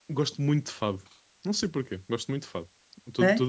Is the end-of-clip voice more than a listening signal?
Yes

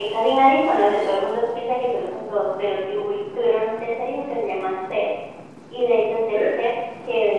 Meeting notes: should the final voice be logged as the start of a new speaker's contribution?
No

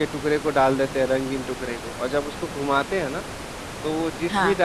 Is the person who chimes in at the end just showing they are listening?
Yes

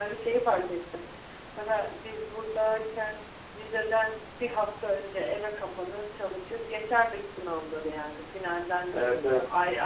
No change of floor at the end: Yes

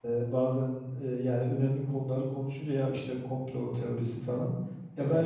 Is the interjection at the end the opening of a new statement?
No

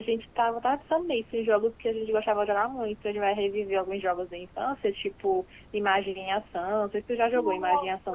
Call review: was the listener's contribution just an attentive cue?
No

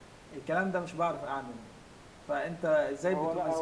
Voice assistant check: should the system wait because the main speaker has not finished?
No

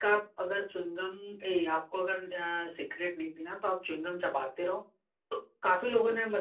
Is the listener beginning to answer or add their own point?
No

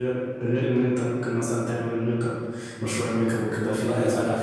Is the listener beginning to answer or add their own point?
Yes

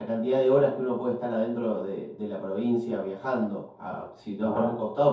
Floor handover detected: No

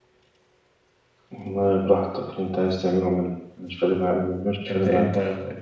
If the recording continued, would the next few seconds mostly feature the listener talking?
Yes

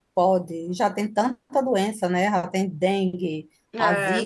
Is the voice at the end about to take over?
No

